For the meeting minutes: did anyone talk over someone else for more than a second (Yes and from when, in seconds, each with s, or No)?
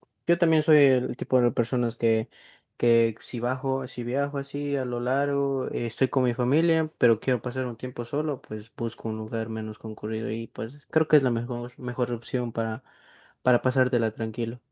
No